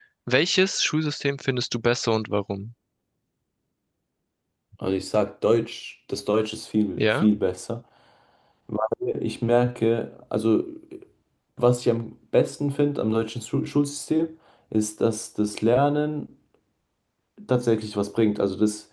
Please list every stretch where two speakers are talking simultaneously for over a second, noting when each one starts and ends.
none

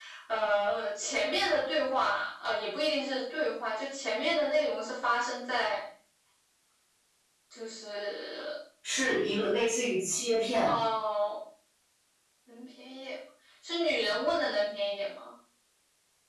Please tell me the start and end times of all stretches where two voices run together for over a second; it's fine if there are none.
none

